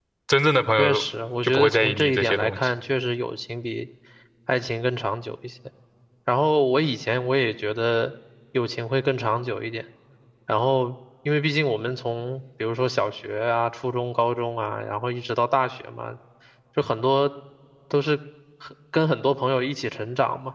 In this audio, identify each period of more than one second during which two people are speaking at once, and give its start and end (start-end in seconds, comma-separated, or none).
1.4-2.7